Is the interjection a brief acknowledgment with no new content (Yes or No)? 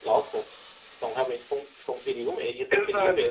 No